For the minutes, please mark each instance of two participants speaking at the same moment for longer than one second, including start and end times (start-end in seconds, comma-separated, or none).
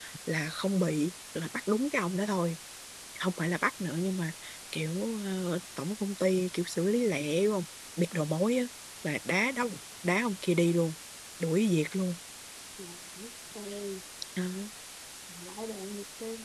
none